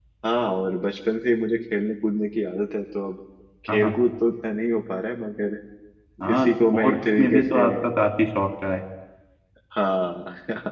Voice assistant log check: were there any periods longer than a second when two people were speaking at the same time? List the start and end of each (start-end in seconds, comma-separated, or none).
6.3-7.6